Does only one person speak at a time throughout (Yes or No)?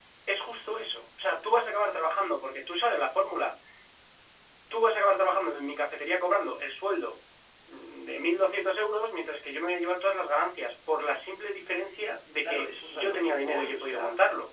No